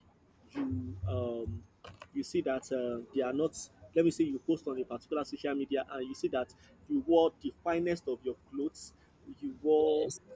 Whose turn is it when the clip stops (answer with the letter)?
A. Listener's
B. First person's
B